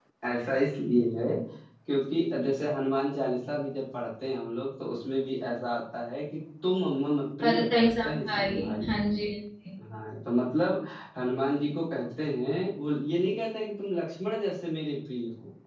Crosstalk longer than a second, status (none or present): present